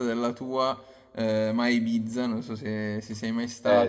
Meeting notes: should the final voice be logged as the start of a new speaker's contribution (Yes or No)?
No